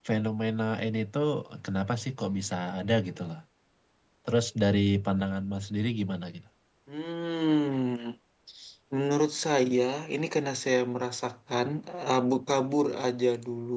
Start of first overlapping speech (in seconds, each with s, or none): none